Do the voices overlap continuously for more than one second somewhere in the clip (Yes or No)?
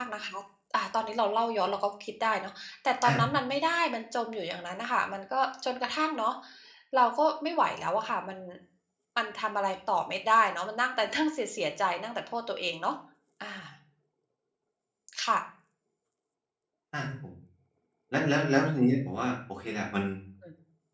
No